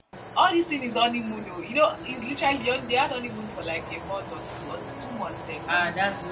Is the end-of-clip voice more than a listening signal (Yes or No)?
Yes